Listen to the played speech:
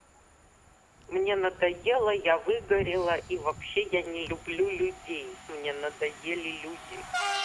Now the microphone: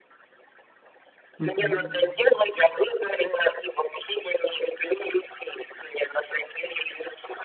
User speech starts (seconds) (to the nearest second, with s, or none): 1 s